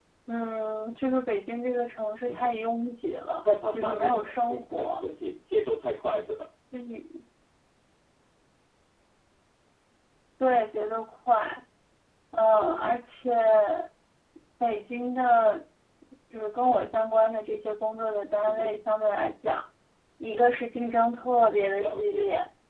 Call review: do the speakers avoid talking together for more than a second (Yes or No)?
No